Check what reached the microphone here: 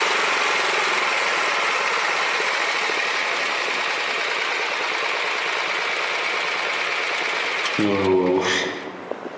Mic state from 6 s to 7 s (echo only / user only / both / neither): neither